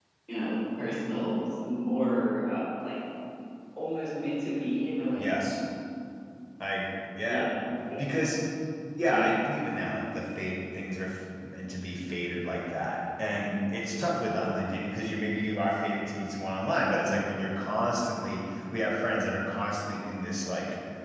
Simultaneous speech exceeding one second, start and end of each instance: none

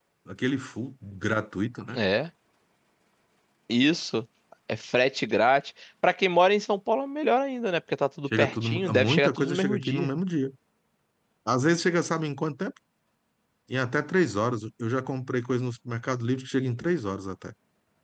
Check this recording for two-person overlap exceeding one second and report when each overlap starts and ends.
8.4-10.1

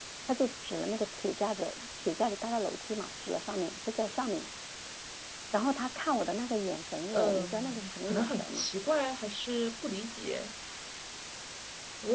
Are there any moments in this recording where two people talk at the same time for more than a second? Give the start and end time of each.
7.1-8.7

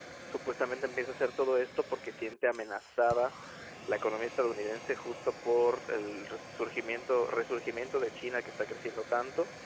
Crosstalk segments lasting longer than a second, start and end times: none

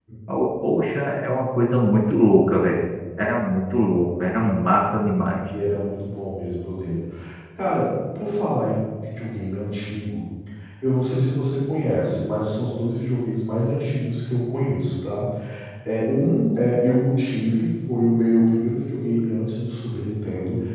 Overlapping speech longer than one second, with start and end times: none

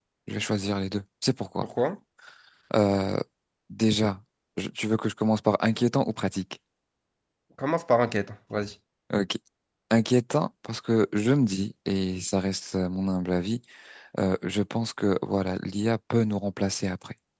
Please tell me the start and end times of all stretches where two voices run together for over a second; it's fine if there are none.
none

